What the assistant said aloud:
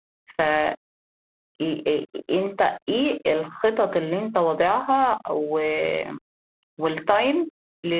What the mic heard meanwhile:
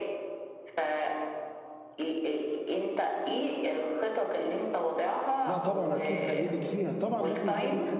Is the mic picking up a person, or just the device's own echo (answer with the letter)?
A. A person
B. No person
A